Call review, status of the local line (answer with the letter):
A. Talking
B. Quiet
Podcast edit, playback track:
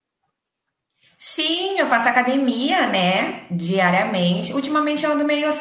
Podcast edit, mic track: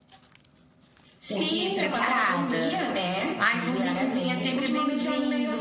A